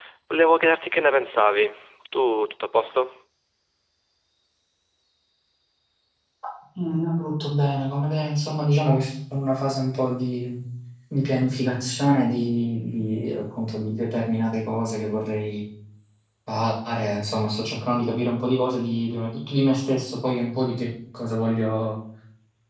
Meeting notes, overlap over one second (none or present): none